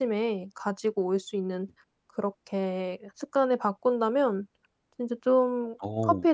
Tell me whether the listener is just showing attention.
Yes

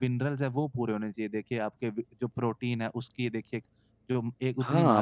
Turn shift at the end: Yes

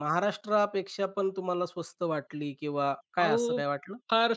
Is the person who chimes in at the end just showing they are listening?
No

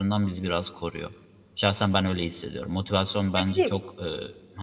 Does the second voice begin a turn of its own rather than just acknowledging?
No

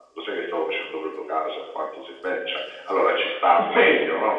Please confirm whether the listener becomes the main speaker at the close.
Yes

